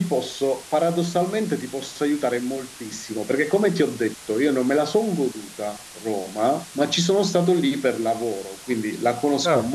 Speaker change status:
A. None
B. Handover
A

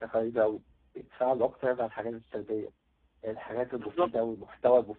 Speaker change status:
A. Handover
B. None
B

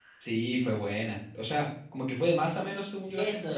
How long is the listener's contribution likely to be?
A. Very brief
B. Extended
B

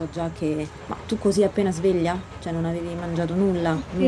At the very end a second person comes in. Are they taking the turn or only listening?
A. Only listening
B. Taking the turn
B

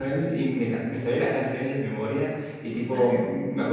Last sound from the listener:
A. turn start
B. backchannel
B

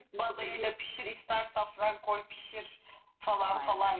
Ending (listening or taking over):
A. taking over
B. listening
B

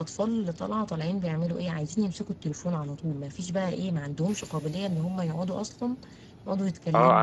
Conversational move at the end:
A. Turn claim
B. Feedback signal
A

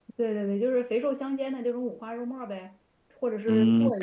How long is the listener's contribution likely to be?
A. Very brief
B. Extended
B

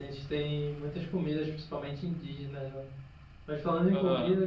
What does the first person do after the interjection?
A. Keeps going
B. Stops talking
A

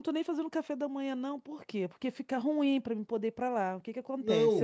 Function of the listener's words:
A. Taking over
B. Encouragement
A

